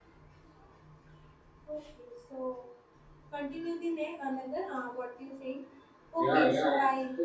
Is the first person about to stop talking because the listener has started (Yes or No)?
Yes